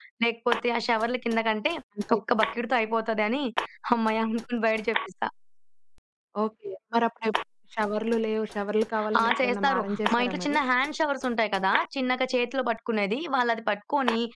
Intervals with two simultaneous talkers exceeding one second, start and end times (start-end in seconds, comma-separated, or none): 9.2-10.6